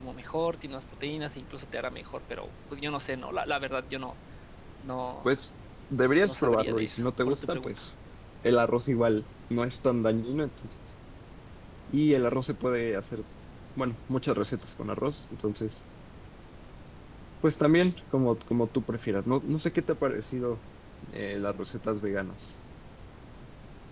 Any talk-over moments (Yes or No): Yes